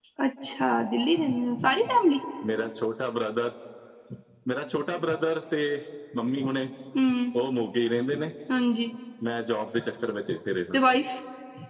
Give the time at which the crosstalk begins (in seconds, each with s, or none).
none